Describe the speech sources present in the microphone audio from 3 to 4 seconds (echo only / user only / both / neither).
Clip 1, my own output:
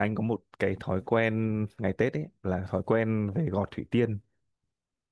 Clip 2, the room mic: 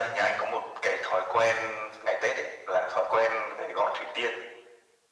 echo only